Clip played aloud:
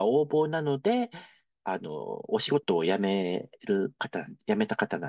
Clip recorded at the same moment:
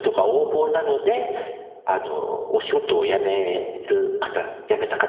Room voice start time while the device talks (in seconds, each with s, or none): none